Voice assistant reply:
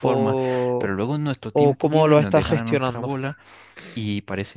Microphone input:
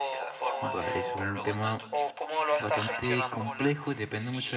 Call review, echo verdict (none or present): present